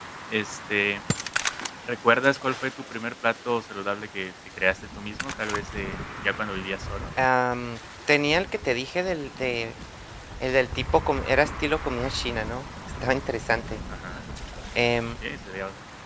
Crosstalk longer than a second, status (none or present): none